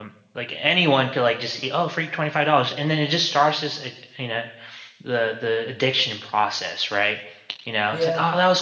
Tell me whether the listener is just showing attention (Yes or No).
Yes